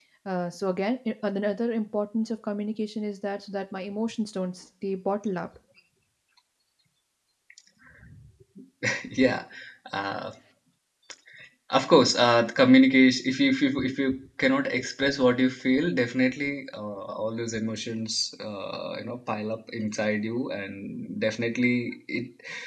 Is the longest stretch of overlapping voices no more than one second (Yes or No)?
Yes